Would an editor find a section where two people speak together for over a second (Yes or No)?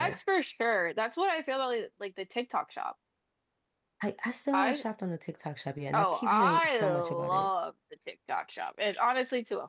Yes